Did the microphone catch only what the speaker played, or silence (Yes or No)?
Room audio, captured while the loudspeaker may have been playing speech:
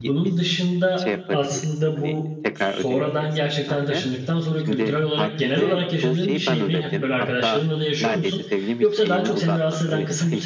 No